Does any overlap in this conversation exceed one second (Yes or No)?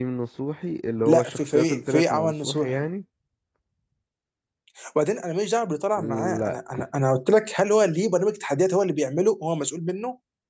Yes